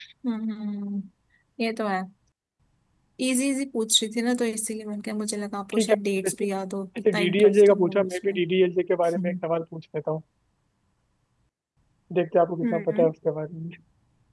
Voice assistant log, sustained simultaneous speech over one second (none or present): present